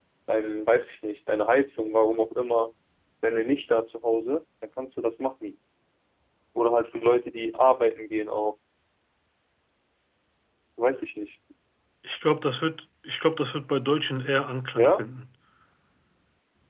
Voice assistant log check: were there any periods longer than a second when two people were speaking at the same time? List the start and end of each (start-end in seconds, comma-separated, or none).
none